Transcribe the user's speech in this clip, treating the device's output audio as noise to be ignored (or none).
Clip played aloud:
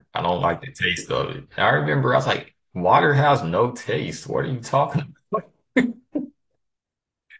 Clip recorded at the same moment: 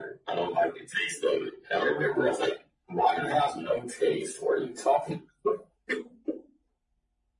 none